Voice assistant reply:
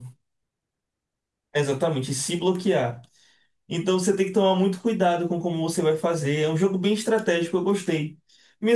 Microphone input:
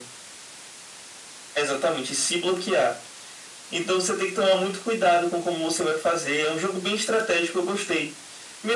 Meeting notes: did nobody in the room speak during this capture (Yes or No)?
Yes